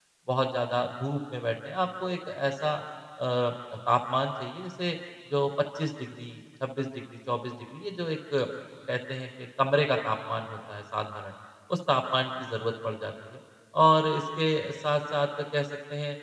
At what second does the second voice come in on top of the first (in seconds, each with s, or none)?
none